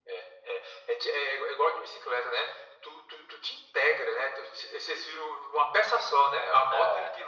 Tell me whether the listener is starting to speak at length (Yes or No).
No